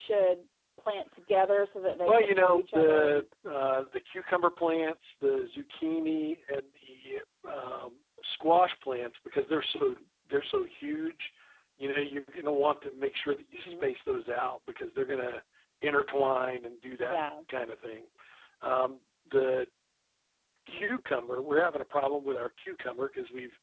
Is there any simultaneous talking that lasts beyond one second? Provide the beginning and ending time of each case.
2.0-3.2

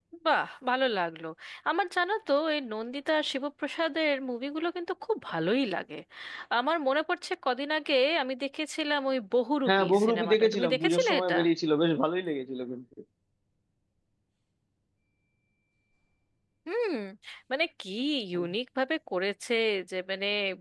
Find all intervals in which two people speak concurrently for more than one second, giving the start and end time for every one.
9.7-11.3

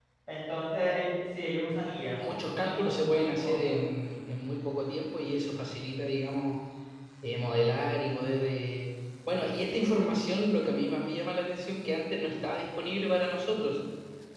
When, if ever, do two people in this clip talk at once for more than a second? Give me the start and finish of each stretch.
2.2-3.8

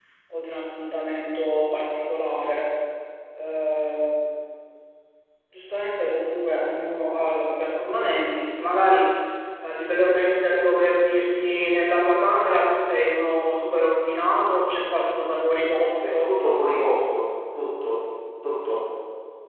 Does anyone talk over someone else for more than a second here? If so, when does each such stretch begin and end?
none

